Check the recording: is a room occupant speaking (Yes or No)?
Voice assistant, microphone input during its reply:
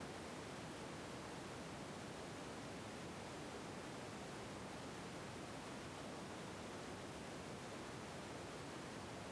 No